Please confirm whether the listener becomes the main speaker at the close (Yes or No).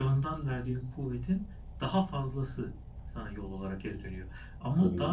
No